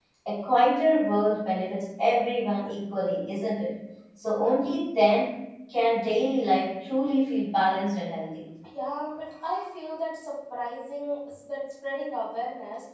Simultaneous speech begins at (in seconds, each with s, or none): none